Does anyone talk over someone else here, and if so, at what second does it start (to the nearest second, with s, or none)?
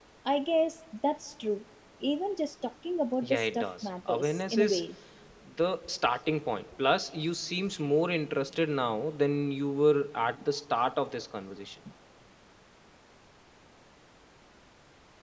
3 s